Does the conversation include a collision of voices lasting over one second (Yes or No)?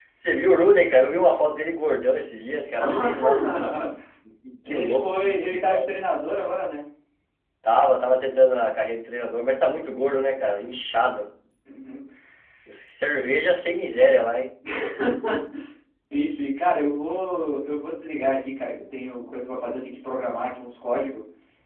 Yes